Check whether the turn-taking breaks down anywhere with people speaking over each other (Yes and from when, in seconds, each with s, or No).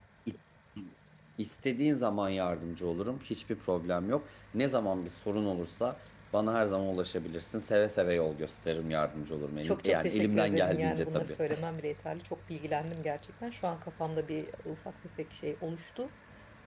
Yes, from 9.6 s